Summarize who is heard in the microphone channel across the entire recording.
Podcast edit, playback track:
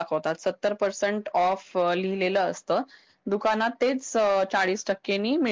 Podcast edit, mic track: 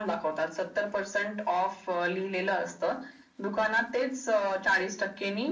echo only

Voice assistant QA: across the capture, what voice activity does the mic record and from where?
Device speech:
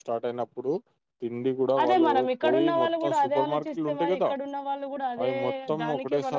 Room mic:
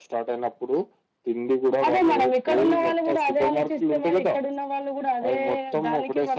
echo only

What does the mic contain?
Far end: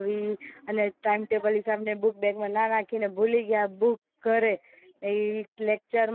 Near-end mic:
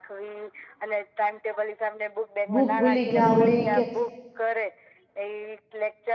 both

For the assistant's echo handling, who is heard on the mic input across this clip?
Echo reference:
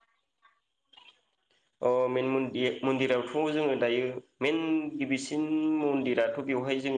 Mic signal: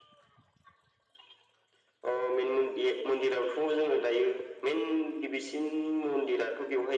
echo only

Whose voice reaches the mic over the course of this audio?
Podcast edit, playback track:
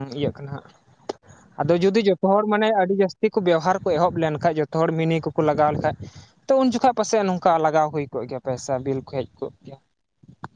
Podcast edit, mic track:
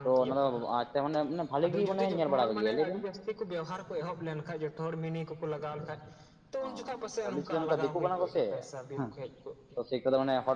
both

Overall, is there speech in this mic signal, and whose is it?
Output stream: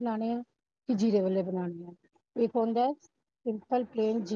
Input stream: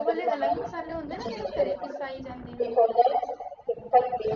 both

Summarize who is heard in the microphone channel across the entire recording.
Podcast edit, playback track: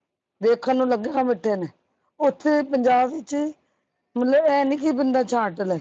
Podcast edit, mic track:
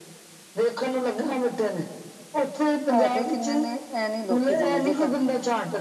both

